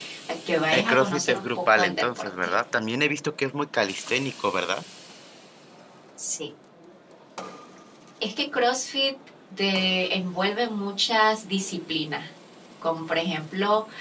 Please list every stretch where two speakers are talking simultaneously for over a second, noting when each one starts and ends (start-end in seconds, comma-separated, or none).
0.7-2.5